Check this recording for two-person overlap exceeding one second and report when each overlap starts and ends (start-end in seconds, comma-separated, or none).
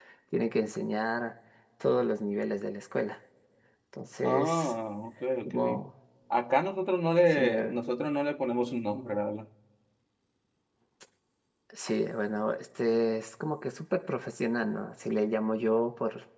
none